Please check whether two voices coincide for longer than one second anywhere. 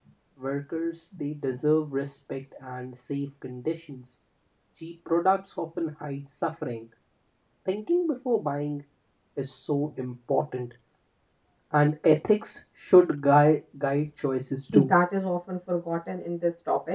No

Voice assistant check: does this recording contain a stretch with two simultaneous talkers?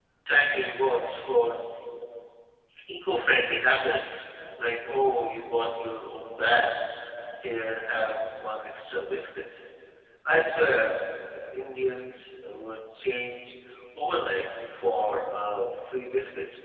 No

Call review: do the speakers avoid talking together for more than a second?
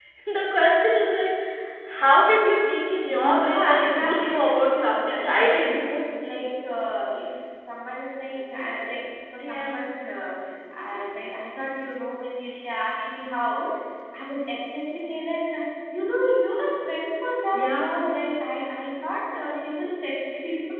No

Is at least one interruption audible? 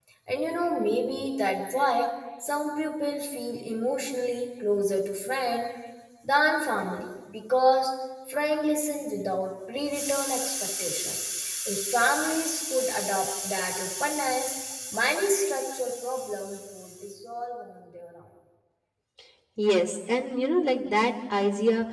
No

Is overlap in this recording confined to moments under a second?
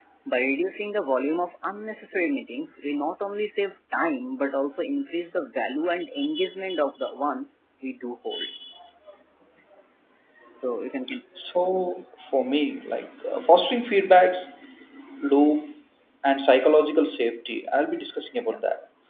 Yes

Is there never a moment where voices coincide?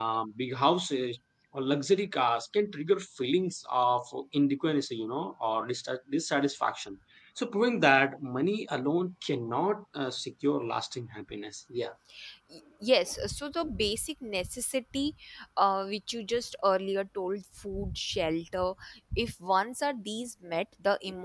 Yes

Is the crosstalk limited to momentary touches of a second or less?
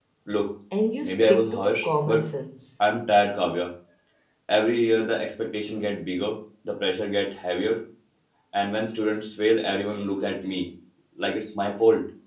No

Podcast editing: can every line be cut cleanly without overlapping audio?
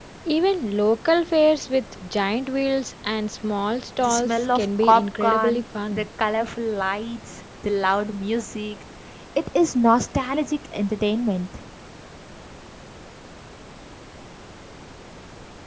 No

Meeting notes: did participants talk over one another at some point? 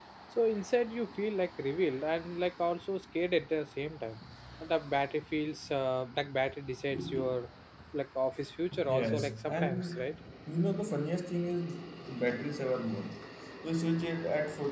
Yes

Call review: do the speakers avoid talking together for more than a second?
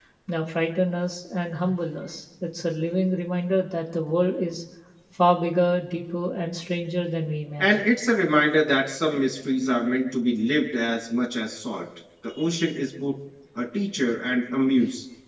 Yes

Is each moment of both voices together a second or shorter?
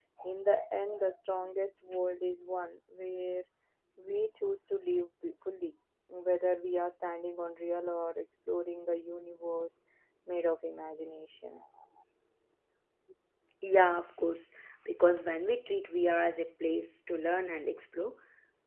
Yes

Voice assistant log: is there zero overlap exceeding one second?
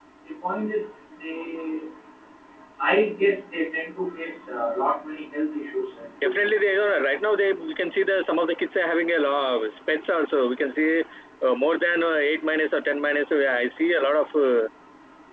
Yes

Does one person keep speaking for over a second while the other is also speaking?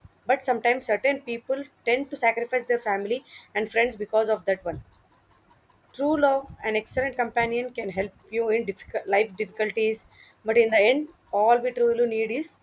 No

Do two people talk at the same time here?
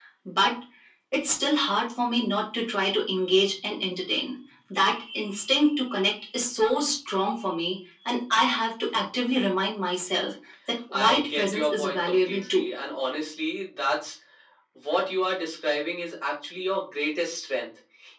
Yes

